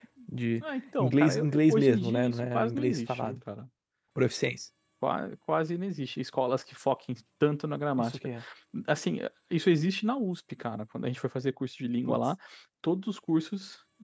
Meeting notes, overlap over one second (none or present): present